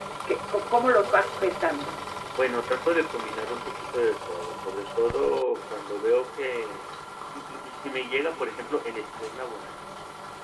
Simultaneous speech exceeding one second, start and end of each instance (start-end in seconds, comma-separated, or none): none